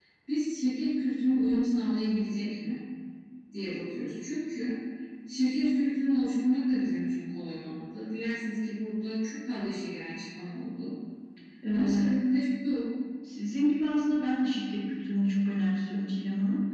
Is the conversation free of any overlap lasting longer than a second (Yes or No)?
Yes